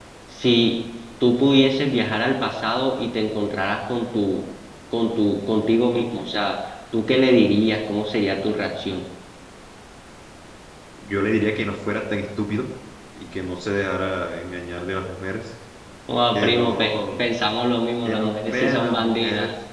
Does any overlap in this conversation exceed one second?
Yes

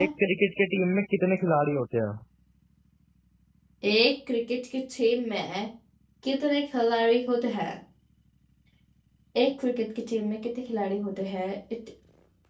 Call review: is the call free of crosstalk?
Yes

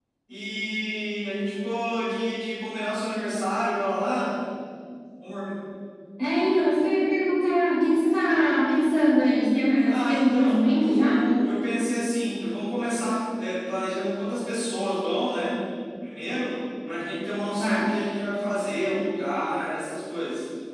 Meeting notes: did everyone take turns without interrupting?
No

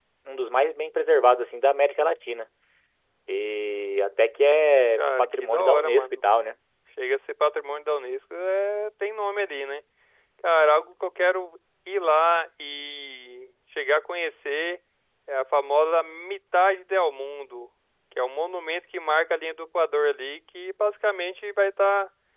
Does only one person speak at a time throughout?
No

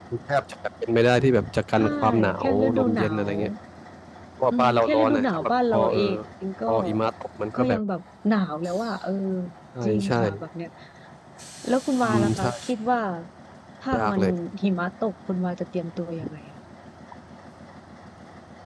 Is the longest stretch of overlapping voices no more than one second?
No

